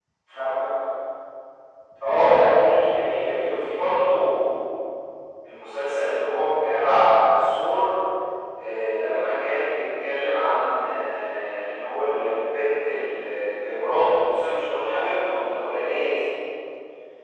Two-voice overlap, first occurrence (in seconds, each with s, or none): none